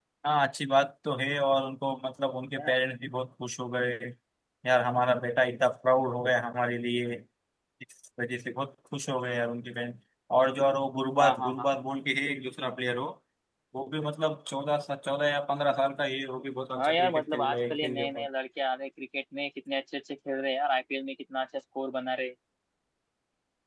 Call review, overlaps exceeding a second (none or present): present